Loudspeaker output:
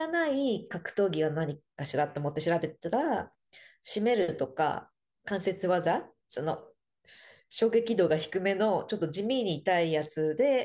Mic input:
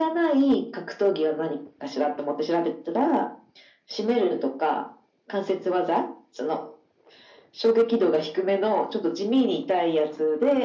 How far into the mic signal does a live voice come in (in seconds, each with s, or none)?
none